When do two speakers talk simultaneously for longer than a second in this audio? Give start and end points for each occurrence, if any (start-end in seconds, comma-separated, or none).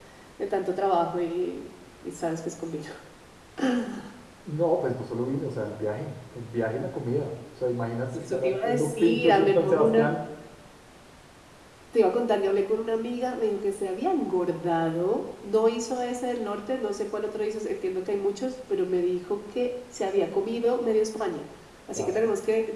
8.1-10.1